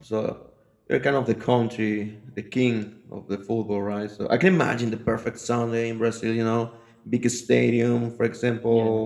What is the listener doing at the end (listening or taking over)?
listening